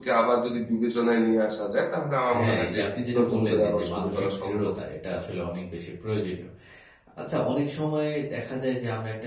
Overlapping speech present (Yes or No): Yes